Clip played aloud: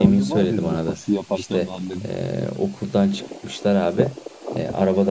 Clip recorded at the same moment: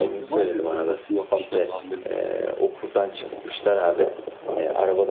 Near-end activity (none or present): none